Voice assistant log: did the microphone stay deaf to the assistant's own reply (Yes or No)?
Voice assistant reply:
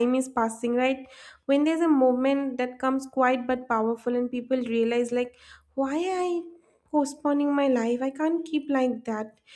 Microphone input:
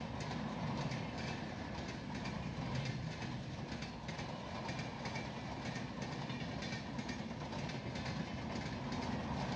Yes